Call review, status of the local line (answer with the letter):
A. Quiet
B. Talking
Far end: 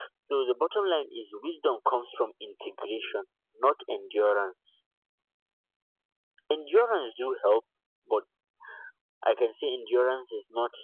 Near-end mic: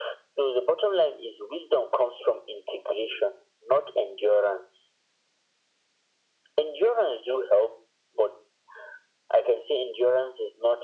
A